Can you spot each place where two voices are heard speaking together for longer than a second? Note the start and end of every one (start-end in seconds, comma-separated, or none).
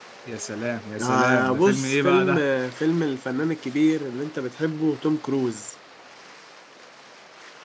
1.0-2.4